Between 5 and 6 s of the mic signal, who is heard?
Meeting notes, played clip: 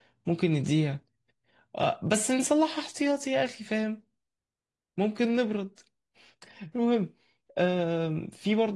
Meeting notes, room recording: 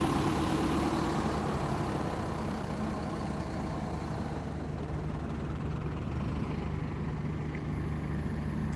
neither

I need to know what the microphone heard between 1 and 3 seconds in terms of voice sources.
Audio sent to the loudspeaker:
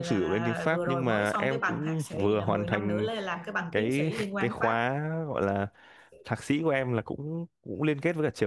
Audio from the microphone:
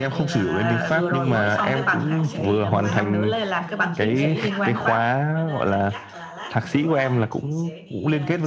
both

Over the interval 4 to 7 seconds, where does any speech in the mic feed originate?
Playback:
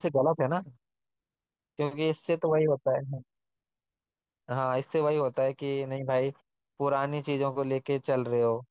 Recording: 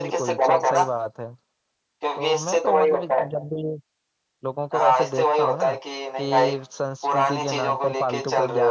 both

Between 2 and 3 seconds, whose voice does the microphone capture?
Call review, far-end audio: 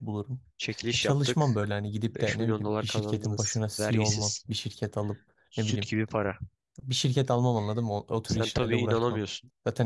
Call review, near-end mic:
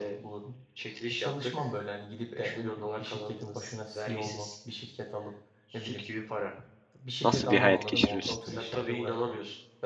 echo only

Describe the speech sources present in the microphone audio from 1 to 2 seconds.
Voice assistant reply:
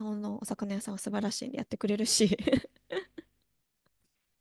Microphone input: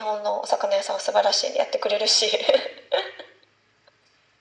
echo only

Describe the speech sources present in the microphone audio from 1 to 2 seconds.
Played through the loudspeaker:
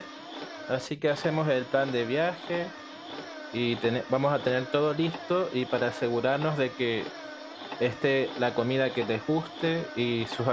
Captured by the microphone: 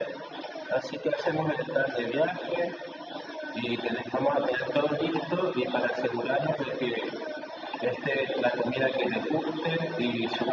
echo only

